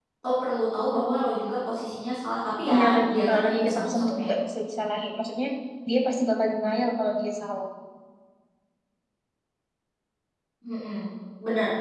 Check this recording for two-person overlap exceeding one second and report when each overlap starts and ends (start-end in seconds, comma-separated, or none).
2.7-4.3